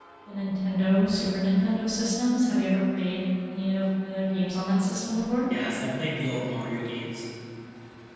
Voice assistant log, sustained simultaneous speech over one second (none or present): none